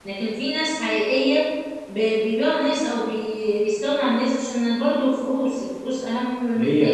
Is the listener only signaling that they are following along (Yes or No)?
No